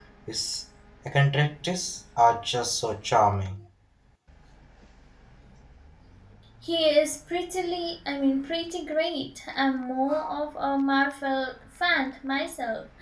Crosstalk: none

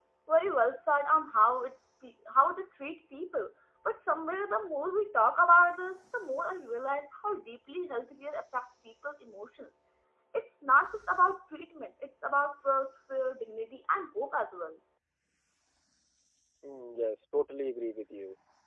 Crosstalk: none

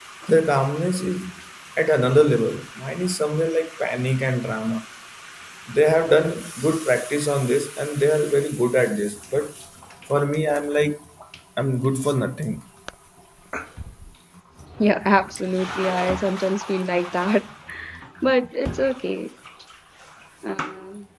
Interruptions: none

